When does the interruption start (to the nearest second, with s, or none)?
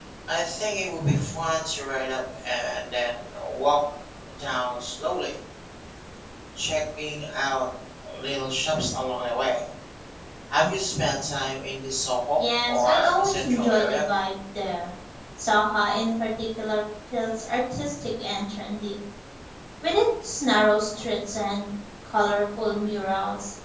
13 s